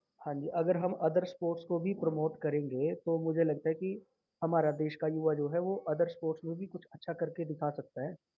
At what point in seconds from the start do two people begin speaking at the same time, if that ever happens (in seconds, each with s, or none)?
none